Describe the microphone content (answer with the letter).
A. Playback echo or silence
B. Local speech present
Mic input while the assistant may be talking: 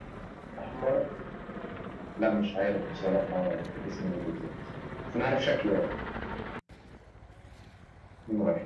A